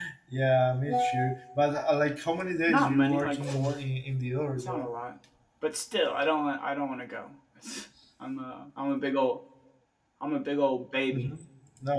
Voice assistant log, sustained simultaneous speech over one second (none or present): present